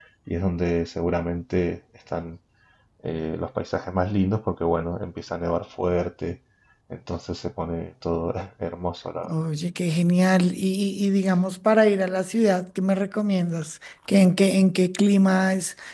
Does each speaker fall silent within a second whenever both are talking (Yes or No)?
Yes